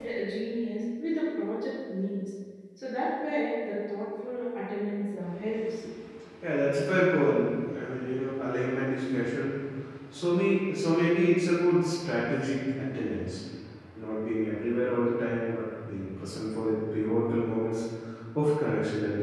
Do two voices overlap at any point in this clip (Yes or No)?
No